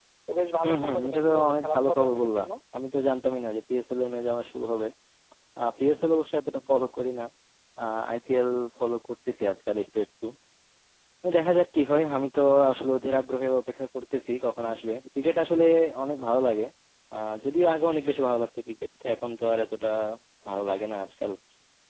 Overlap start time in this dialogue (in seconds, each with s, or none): 0.6 s